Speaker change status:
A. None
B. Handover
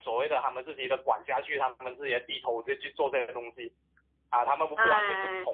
A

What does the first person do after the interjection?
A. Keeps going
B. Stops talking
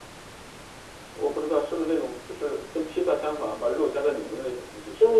B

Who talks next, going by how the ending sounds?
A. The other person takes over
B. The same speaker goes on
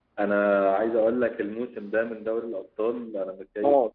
B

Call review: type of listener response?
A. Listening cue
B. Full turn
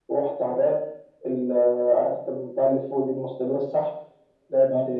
A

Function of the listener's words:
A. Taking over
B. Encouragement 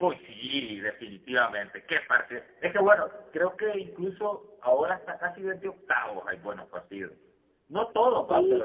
B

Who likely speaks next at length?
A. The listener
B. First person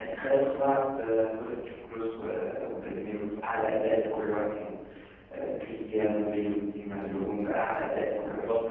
A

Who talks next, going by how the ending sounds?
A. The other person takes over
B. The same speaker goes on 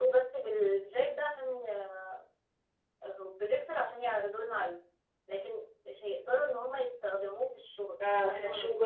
A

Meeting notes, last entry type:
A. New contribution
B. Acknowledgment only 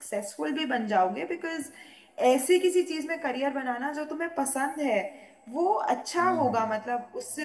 B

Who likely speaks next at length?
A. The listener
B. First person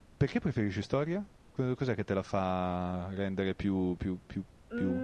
A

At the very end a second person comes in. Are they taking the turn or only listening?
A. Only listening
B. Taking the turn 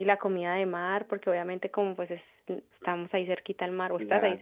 B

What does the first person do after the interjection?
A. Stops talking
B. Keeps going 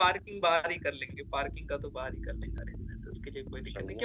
B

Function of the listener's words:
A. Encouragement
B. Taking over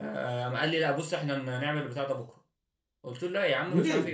A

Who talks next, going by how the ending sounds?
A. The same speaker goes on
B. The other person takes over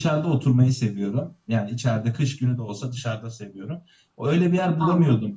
A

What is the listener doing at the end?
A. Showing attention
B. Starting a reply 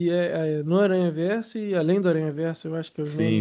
B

